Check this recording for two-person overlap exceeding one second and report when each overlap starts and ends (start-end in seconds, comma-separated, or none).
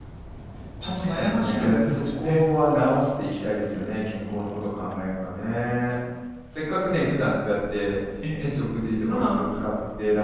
0.8-2.4